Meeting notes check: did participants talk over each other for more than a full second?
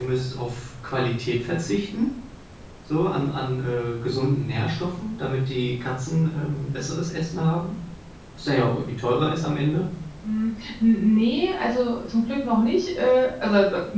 No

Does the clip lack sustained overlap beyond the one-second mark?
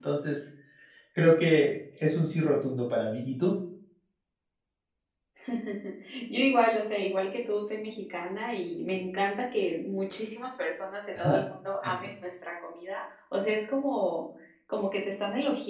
Yes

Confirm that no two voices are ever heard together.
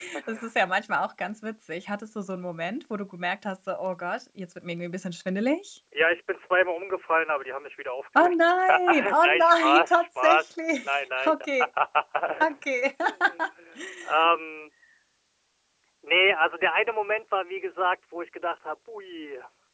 No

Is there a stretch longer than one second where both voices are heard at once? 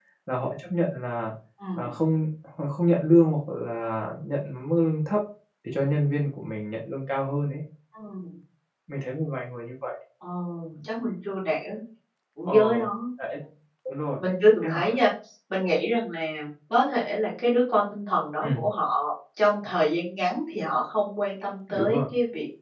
No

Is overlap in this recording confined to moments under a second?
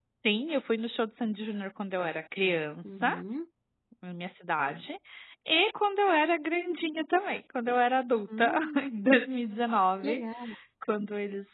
Yes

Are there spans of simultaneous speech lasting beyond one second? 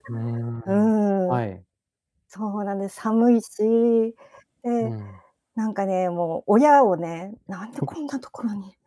No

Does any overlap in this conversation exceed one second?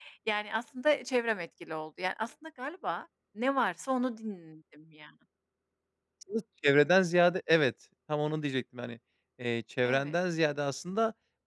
No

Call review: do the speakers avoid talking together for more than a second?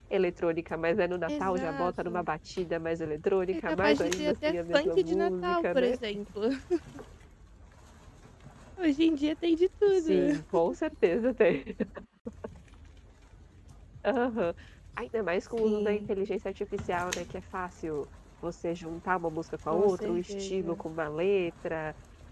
No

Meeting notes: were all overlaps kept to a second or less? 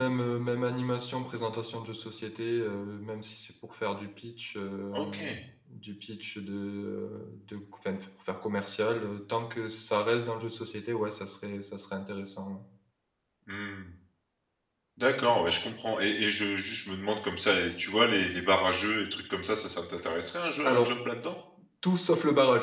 Yes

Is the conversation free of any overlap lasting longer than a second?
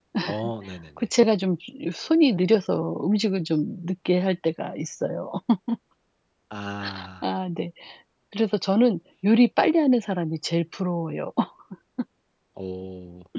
Yes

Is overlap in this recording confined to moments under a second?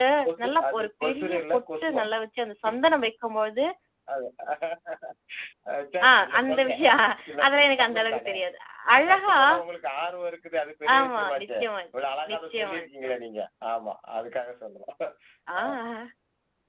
No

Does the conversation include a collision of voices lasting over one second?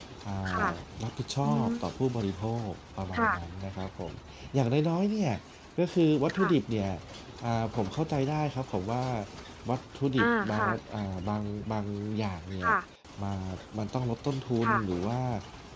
No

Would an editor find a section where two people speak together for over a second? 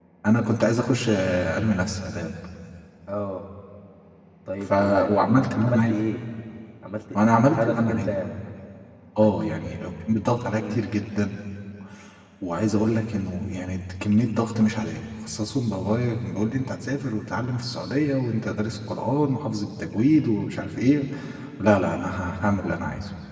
Yes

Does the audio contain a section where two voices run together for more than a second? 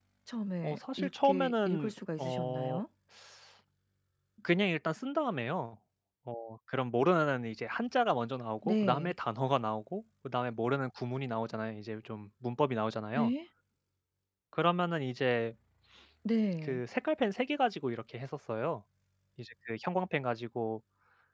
Yes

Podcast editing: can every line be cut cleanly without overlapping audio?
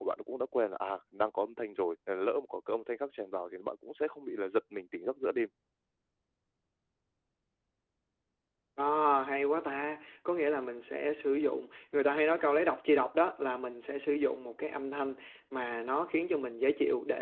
Yes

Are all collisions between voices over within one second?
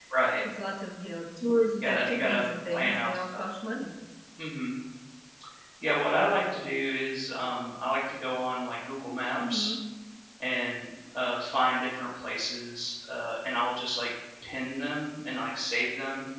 No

